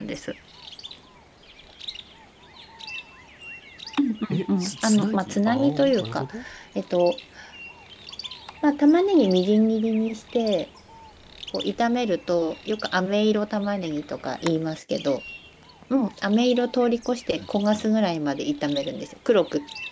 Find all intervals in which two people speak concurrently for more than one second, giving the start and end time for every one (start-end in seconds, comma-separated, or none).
4.3-6.2